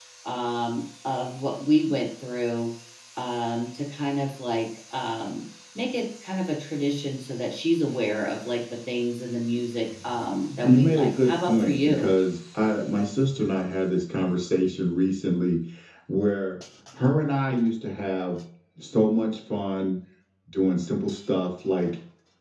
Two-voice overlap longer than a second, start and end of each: 10.6-12.1

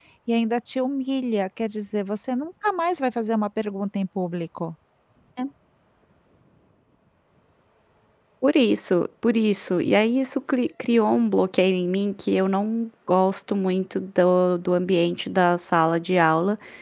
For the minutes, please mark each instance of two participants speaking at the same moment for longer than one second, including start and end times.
none

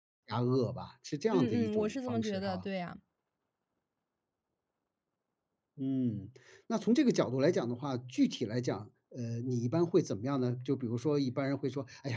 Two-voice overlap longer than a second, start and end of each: 1.3-2.7

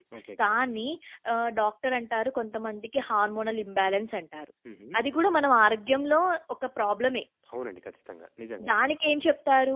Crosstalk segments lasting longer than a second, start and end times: none

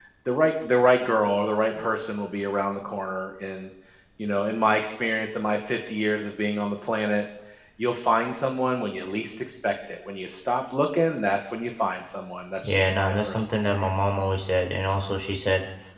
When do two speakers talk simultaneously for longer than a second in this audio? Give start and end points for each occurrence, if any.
12.6-13.9

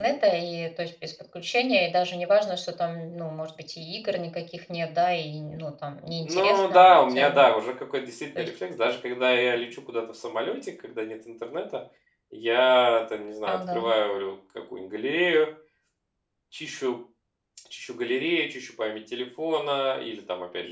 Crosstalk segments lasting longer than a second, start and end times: 6.2-7.5

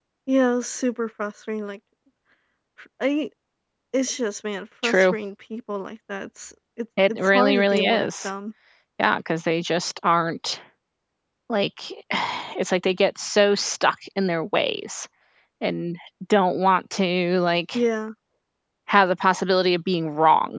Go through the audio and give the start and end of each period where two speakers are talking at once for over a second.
7.1-8.3

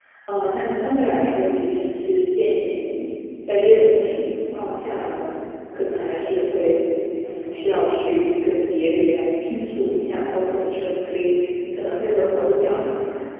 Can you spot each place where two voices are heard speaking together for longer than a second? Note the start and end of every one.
none

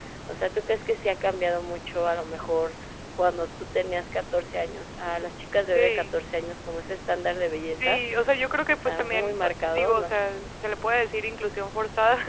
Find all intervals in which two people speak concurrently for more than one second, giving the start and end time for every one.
8.7-10.1

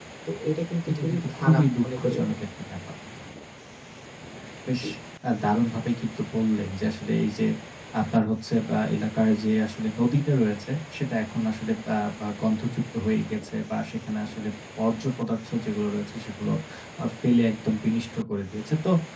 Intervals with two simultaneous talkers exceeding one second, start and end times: 0.9-2.4

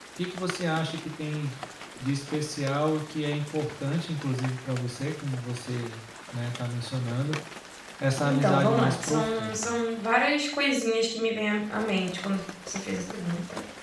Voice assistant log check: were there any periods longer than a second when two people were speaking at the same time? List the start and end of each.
8.2-9.7

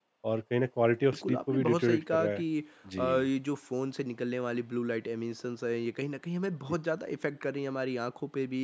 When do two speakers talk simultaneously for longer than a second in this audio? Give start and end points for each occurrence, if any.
1.1-2.4

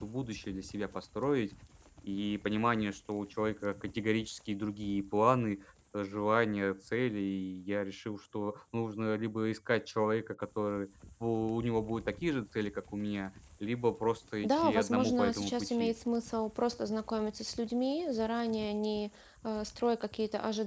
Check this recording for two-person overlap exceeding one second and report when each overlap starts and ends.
14.4-15.9

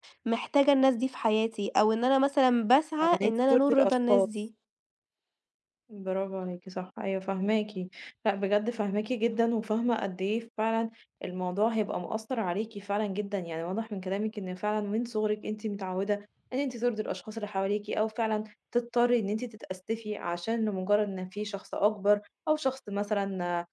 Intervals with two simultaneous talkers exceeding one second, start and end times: 3.0-4.3

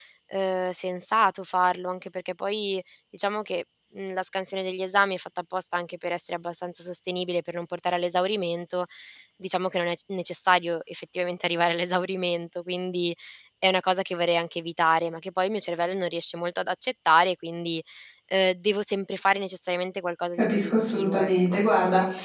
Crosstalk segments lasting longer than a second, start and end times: 20.4-21.6

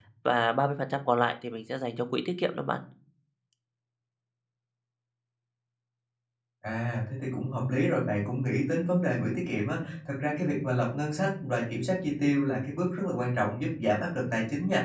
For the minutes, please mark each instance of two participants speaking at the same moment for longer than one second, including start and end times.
none

